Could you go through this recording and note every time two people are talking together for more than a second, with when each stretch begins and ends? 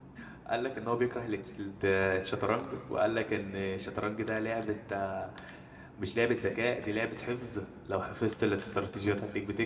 none

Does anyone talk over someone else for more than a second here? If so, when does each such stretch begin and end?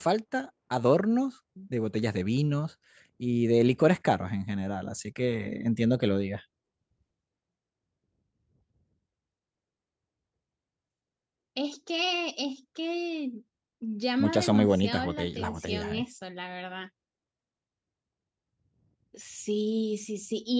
14.2-16.0

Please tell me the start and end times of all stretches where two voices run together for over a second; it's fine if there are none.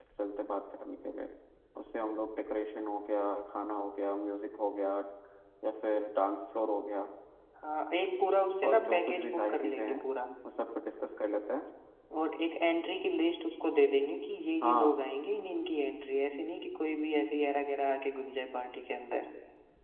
8.6-10.0

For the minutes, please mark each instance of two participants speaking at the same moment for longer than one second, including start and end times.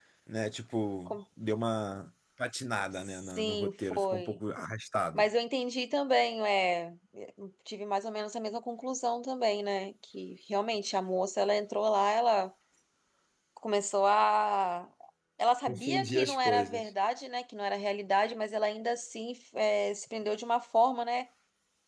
3.1-4.4, 15.7-16.9

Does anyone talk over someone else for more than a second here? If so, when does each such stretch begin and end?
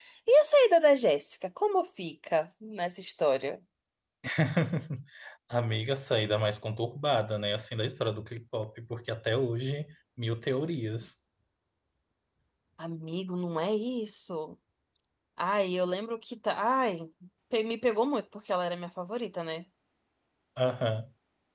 none

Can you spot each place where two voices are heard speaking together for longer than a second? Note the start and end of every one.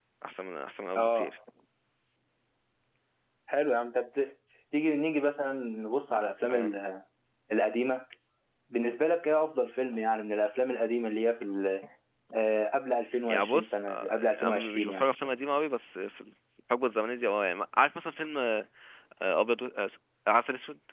13.3-15.1

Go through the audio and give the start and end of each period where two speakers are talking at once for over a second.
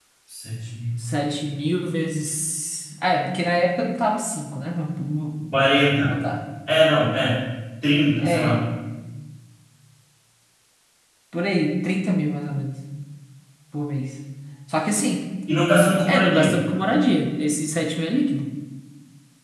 none

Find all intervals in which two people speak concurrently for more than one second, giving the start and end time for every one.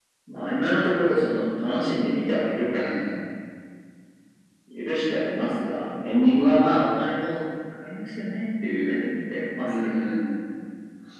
none

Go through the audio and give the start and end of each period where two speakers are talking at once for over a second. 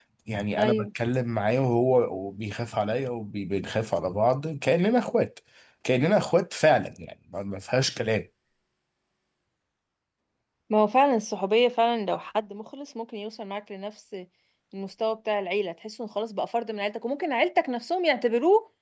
none

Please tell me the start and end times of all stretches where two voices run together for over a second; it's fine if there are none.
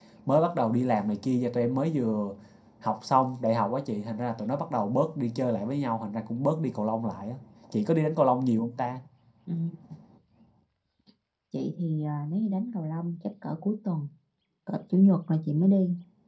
none

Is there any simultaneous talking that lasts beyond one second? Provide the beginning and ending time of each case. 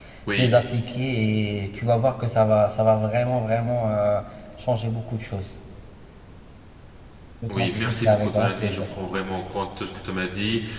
7.5-8.9

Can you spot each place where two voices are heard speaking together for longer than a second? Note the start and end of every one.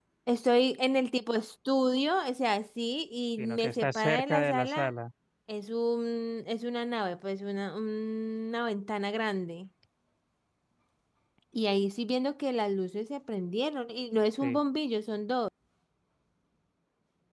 3.4-4.9

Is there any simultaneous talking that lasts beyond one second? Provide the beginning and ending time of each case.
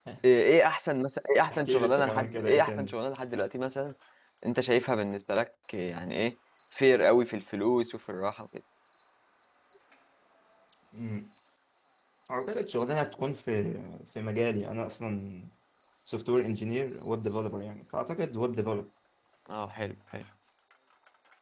1.5-2.9

